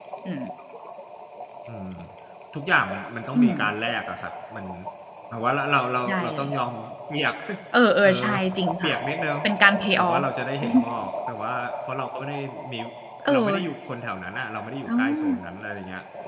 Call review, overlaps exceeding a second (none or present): none